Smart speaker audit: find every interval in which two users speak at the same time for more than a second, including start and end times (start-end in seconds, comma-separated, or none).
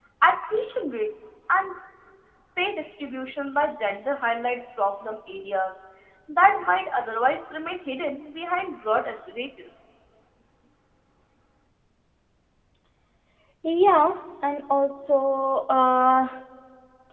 none